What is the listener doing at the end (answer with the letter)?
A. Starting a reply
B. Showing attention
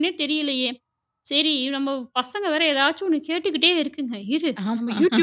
B